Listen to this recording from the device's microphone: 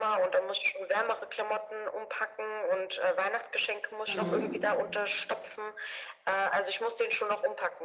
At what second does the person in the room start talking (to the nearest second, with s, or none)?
4 s